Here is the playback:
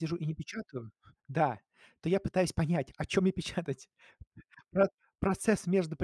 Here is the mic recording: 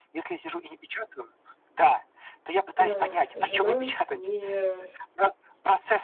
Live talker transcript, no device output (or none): э, жена не